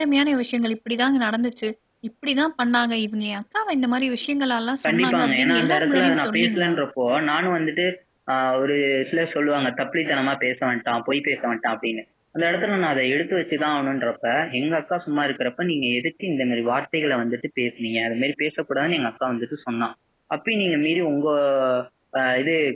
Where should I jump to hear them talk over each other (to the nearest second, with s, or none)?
5 s